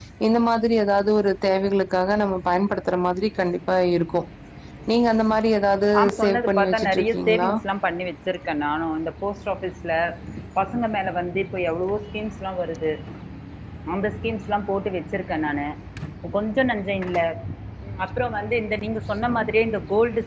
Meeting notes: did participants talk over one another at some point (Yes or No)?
Yes